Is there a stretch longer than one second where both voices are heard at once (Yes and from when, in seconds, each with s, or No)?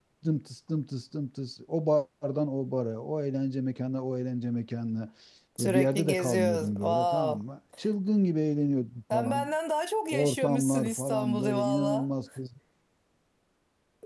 Yes, from 5.6 s